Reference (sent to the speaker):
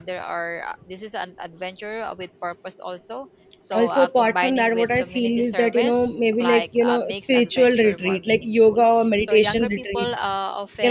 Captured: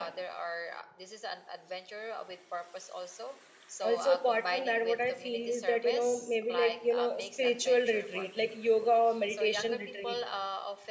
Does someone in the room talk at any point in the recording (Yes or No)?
No